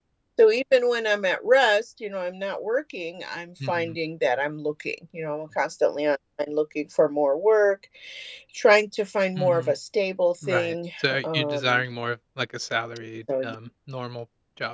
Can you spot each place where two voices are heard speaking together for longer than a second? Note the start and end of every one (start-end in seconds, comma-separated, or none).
10.5-11.8